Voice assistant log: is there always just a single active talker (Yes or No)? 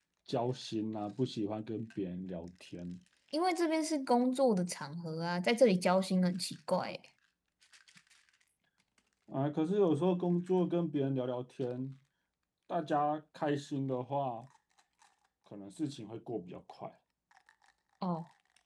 Yes